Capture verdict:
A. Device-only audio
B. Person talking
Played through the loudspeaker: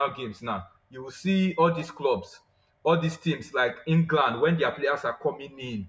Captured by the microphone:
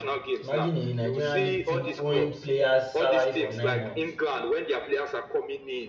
B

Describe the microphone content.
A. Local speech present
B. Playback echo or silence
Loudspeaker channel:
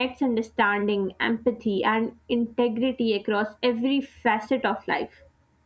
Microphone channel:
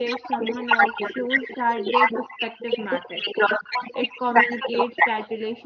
A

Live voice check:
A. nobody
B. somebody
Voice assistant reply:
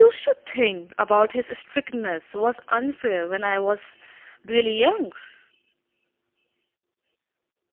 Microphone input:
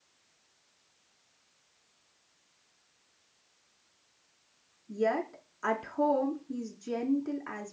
B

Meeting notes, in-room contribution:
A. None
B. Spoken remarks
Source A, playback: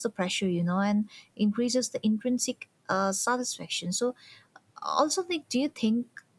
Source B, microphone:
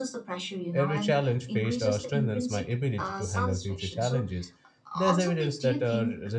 B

